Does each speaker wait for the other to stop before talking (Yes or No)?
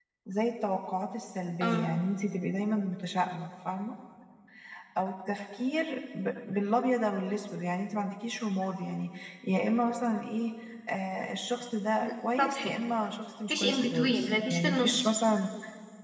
No